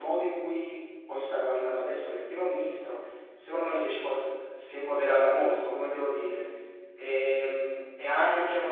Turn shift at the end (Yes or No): No